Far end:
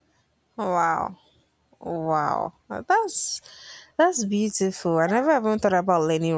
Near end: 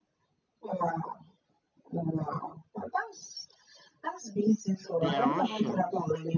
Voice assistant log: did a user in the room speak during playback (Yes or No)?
Yes